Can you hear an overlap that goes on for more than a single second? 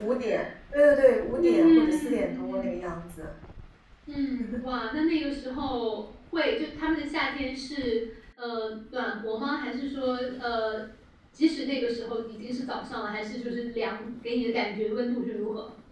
Yes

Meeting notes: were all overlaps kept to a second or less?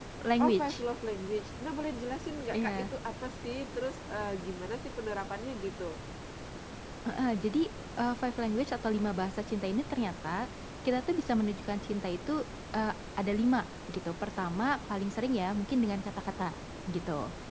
Yes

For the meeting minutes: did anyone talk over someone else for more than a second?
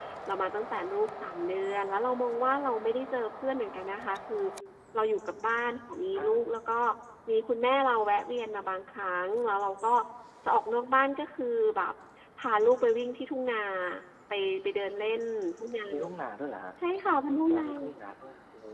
No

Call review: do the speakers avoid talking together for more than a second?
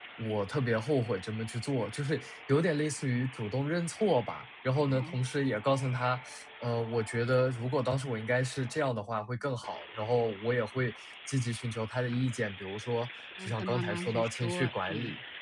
No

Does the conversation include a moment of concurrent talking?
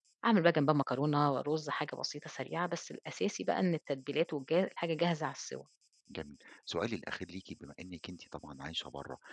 No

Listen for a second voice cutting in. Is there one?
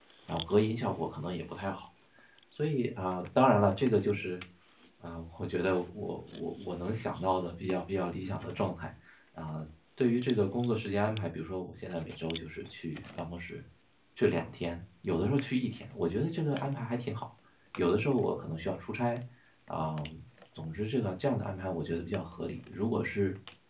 No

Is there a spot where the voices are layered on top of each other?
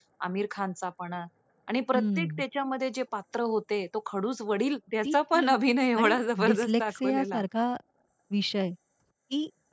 Yes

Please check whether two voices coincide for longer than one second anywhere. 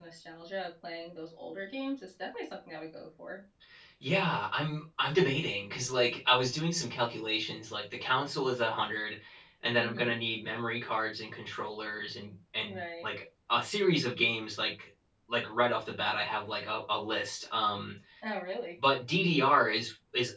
No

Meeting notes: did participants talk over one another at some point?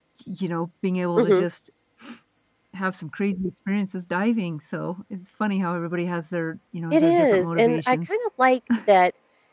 Yes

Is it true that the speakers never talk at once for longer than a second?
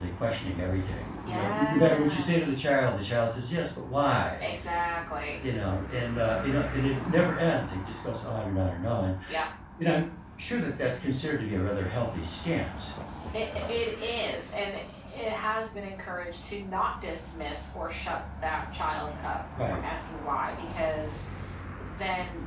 No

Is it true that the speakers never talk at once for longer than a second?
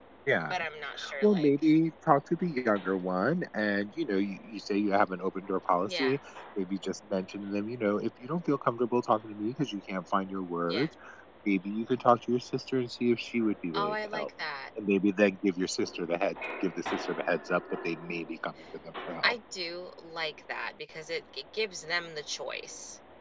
Yes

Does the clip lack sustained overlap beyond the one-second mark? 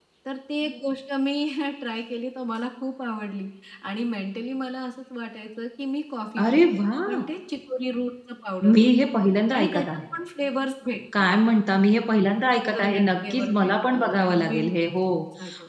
No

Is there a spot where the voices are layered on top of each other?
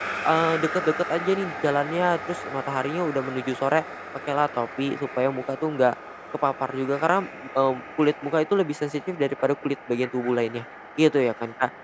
No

